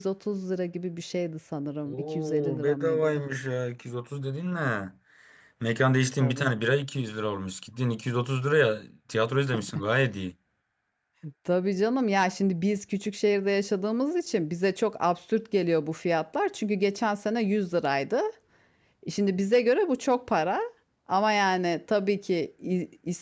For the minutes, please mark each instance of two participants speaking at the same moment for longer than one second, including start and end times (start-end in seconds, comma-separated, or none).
1.9-3.2